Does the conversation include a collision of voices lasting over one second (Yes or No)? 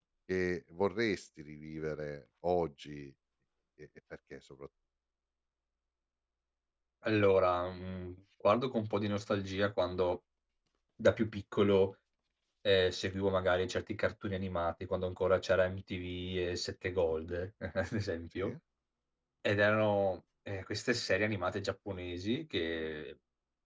No